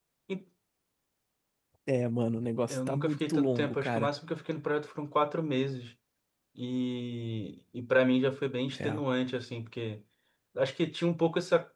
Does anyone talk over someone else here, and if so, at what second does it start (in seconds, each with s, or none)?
2.7 s